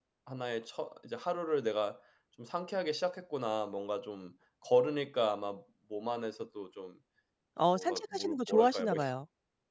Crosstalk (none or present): present